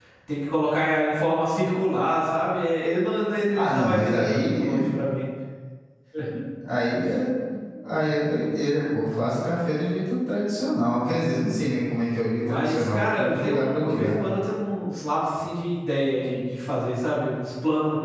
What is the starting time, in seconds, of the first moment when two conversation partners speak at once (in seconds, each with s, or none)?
3.5 s